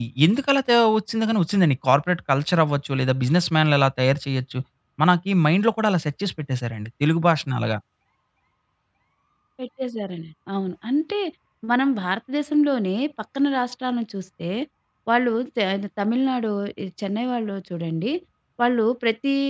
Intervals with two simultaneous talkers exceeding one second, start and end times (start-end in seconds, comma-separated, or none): none